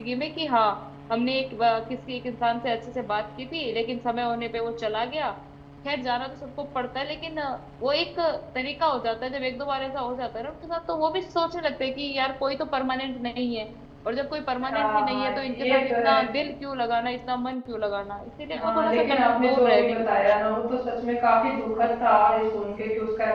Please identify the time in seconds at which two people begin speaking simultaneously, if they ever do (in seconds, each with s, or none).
14.7 s